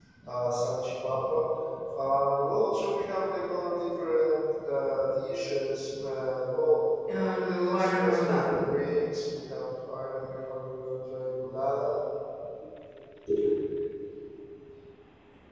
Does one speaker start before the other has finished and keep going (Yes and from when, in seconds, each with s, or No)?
Yes, from 7.2 s